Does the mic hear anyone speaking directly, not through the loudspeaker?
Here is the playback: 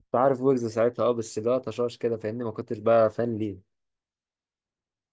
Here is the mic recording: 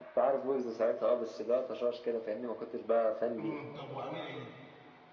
Yes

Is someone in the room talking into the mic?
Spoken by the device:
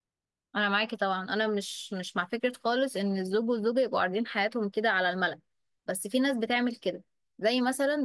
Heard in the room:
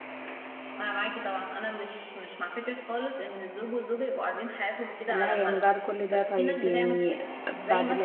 Yes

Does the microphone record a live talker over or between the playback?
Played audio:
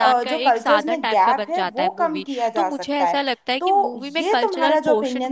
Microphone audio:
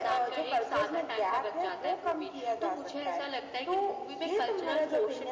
No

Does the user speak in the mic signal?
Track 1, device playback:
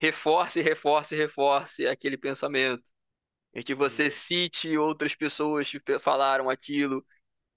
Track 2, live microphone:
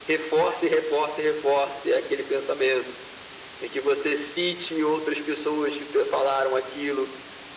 No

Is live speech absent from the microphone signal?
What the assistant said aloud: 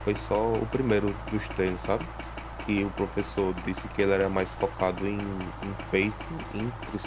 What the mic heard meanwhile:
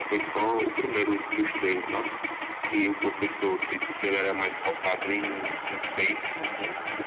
Yes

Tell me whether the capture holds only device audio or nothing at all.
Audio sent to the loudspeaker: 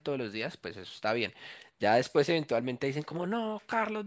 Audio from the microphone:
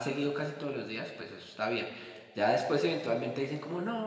Yes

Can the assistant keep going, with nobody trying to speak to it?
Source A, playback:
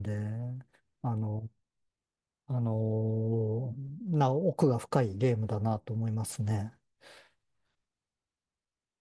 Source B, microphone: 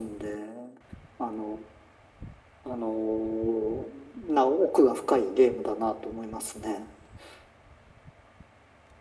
Yes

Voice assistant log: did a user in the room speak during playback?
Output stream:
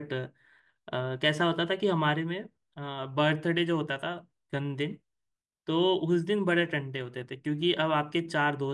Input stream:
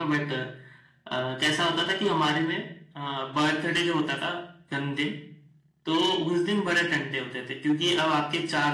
No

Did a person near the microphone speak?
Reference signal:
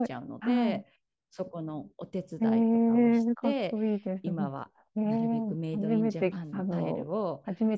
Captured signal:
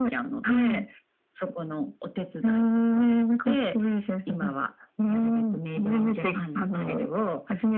No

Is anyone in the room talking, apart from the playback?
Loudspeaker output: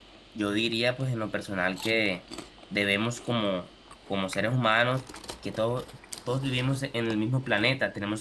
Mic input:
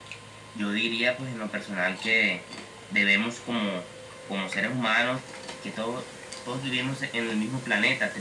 No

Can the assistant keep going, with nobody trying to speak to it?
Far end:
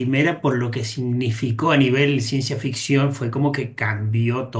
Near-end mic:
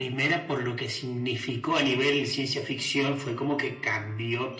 Yes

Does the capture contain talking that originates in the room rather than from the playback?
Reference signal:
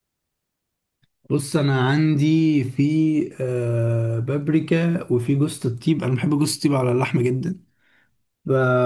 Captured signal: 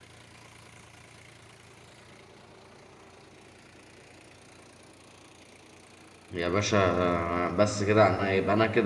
Yes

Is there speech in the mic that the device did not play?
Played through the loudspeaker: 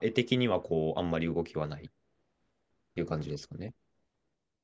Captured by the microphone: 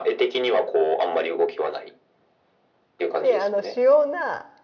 Yes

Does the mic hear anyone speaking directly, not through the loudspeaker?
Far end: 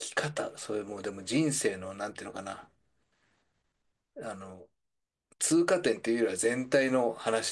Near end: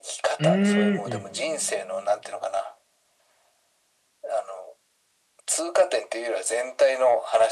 Yes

